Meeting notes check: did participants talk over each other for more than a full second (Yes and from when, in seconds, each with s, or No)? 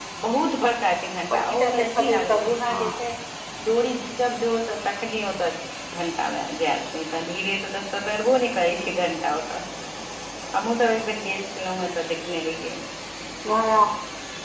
Yes, from 1.3 s